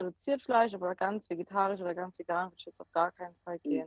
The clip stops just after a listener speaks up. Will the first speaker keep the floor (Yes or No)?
No